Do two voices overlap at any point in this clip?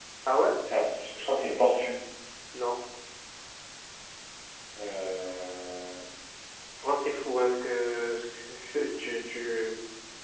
No

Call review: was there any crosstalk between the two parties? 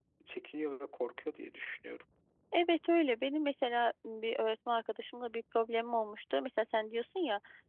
No

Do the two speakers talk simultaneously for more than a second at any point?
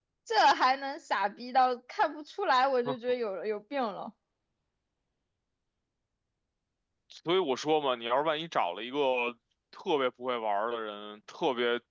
No

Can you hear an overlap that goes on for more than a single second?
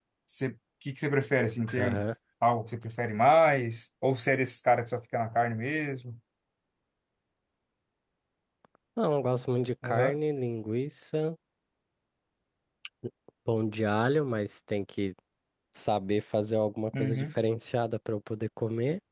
No

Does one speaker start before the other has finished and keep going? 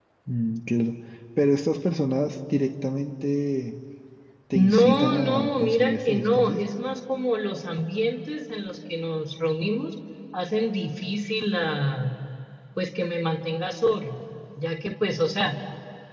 Yes, from 4.5 s

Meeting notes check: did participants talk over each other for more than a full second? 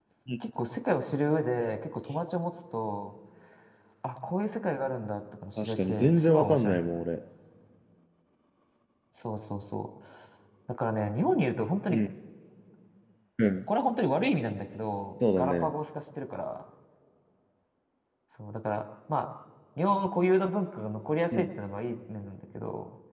Yes, from 5.6 s

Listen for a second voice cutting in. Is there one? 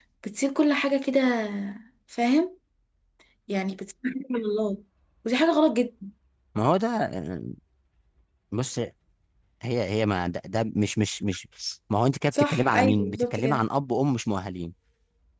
Yes, from 12.4 s

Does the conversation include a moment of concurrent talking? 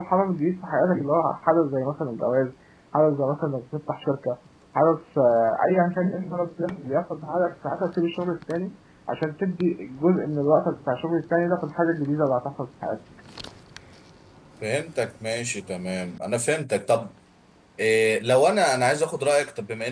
No

